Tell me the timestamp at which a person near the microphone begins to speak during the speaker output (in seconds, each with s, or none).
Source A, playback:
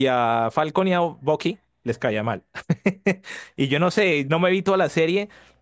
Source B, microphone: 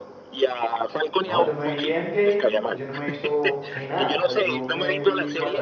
1.2 s